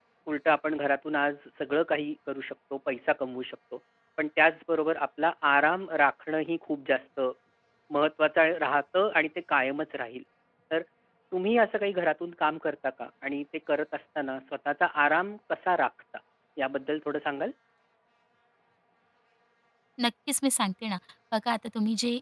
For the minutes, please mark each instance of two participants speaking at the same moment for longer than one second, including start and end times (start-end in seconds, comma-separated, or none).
none